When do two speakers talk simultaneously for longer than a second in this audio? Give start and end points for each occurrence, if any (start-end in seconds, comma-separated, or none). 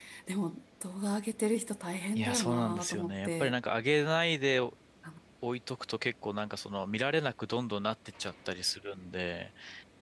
2.1-3.5